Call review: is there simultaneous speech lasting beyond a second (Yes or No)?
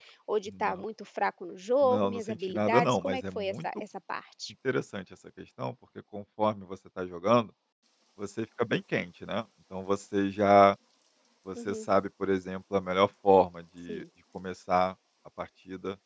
Yes